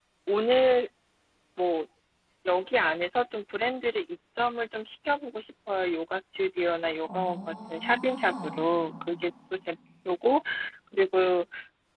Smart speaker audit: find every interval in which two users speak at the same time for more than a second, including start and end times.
7.1-8.6

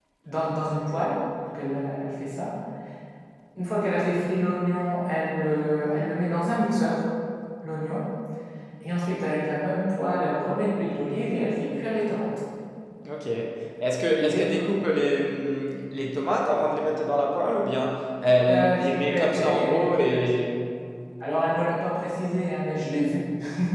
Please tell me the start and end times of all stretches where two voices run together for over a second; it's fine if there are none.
18.5-20.2

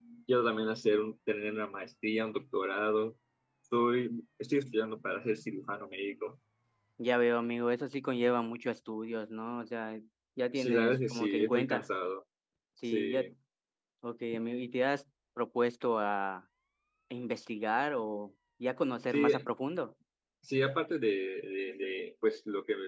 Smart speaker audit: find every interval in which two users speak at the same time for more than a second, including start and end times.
10.5-11.9

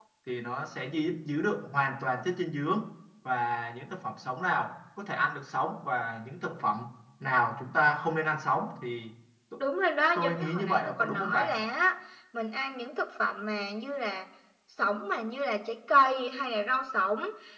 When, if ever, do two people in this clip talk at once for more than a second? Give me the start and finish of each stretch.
10.2-11.5

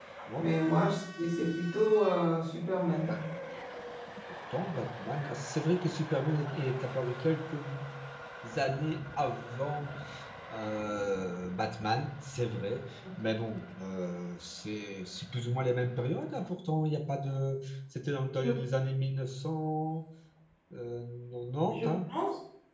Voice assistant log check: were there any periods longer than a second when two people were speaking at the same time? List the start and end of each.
none

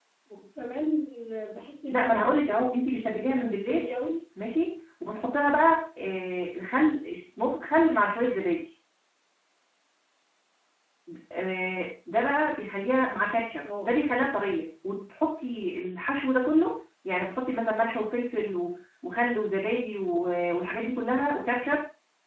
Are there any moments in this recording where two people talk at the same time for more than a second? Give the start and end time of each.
1.9-3.9

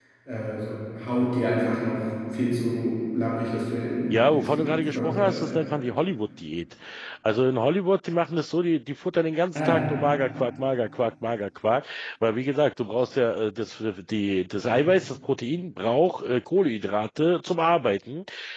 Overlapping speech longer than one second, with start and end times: 4.1-5.6

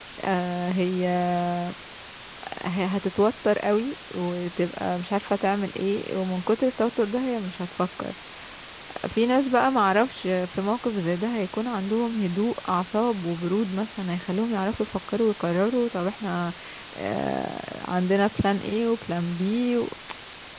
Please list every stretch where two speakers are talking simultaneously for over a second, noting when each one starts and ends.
none

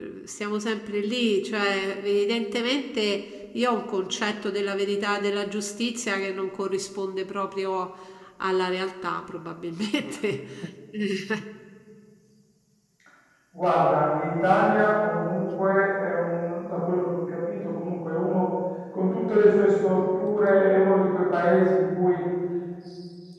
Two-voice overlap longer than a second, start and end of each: none

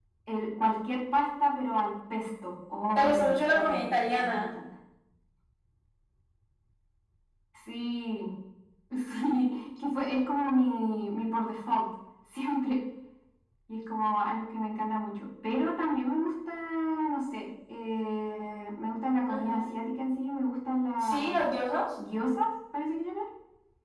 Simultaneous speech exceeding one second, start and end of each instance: 3.0-4.5

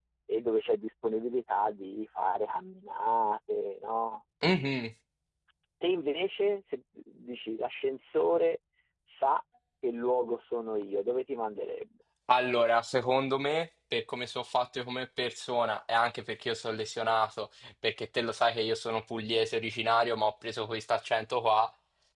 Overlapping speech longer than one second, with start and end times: none

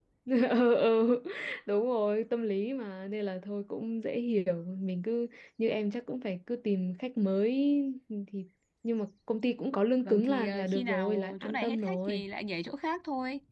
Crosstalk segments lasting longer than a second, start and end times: 10.0-12.2

